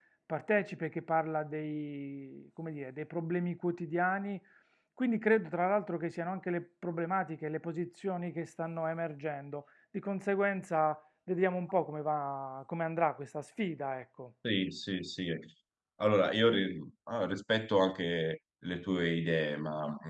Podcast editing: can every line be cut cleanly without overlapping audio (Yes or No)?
Yes